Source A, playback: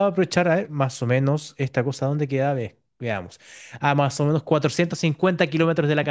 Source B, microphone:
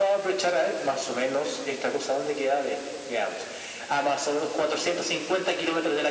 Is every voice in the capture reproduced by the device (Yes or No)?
Yes